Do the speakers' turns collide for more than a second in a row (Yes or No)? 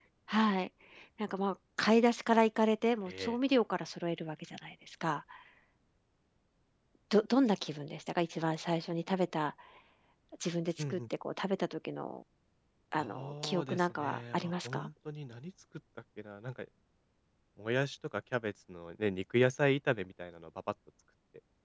Yes